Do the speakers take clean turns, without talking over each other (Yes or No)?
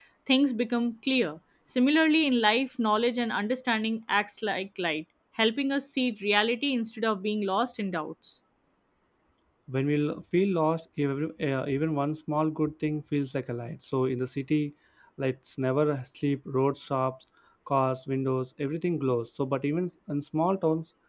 Yes